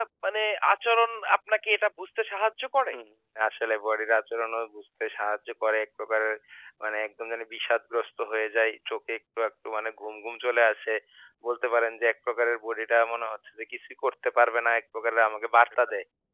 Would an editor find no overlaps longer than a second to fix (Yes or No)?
Yes